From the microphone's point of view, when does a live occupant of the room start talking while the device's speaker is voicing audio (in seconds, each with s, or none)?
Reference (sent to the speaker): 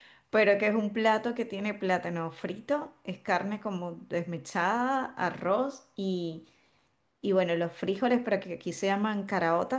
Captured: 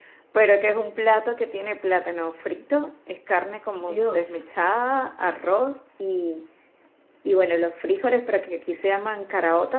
3.8 s